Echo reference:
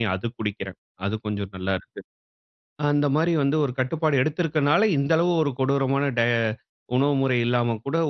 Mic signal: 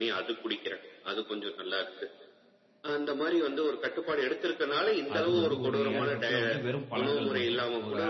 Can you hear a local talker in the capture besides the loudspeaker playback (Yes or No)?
Yes